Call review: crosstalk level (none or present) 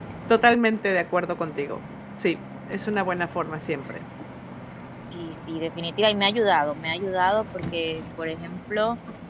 none